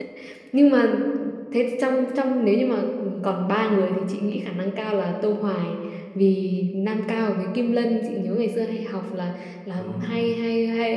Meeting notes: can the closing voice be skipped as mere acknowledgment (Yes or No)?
Yes